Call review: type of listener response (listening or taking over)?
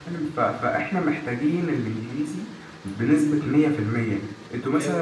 listening